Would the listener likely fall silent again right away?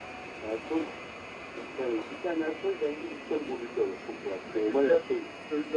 No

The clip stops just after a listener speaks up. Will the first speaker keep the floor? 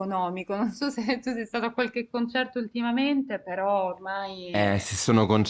No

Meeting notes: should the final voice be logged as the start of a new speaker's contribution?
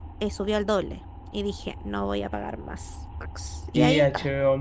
Yes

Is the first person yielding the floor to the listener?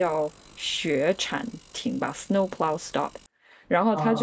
No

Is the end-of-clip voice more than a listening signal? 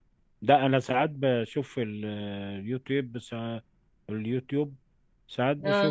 No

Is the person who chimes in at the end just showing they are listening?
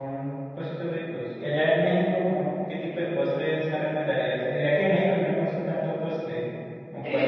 No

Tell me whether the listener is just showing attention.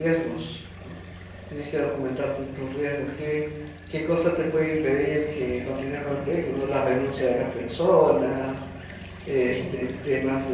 Yes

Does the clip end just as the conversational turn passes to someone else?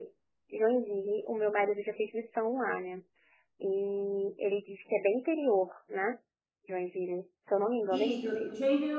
Yes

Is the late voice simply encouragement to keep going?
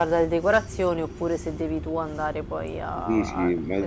No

